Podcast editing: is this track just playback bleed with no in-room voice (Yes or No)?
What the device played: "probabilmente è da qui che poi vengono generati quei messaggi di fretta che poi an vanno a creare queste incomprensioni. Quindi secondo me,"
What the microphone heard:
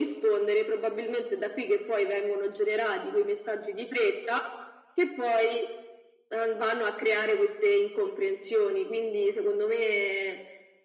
Yes